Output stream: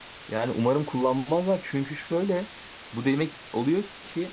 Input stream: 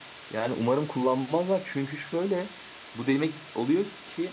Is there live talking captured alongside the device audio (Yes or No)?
No